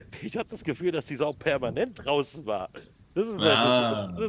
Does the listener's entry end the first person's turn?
No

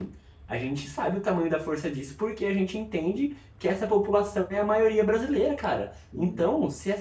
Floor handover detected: No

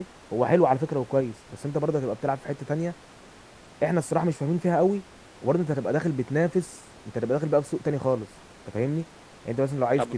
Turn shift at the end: No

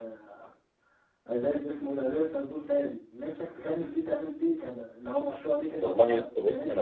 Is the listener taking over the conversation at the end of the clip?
Yes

